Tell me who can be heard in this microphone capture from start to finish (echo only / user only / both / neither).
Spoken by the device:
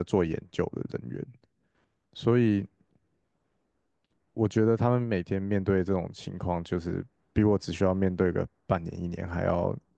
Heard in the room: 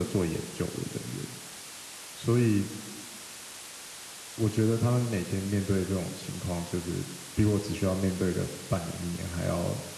echo only